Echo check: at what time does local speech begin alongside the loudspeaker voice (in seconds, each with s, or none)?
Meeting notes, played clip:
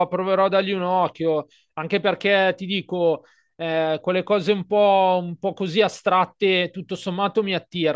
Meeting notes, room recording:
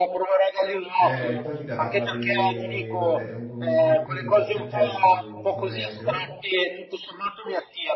0.9 s